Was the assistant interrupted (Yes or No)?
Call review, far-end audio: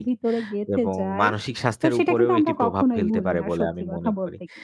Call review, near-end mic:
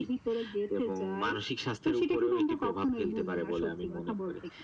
No